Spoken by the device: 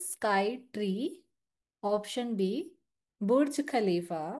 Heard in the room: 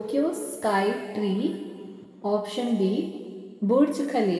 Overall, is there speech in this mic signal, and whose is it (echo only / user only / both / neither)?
echo only